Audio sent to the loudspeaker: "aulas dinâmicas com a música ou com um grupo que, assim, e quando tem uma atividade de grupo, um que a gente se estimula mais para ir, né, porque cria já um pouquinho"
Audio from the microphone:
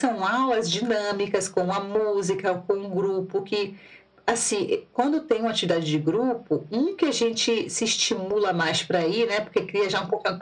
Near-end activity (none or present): none